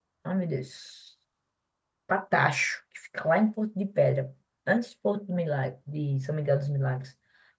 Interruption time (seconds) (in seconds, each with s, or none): none